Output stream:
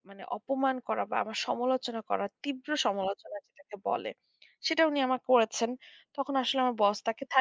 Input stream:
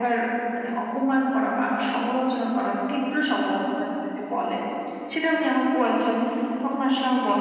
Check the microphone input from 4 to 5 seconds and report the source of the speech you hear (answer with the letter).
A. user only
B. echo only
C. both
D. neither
B